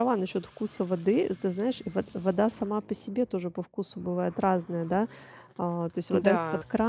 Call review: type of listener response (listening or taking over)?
listening